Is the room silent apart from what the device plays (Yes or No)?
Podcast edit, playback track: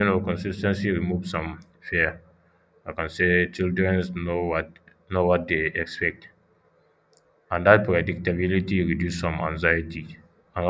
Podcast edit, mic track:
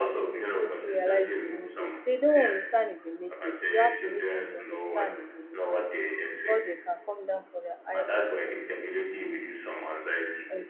No